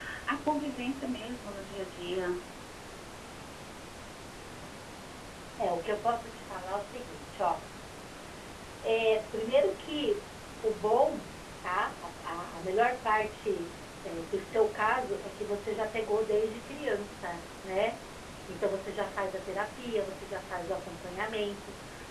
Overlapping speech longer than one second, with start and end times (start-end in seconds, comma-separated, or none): none